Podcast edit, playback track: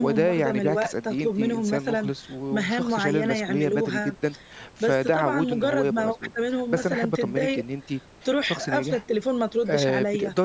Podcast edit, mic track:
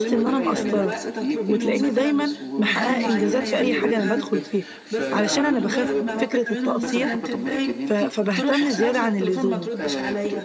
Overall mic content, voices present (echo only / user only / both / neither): both